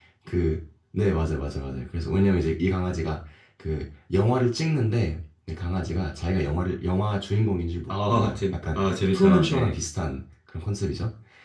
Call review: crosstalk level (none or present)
present